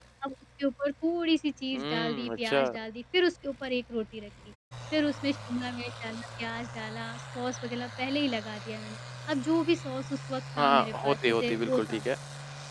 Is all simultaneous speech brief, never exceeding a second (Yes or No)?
No